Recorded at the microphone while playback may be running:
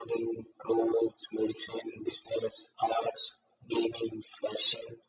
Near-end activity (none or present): none